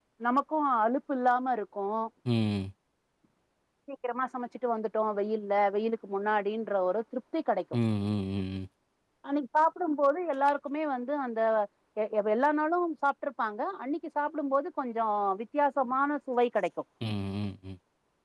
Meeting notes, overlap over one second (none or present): none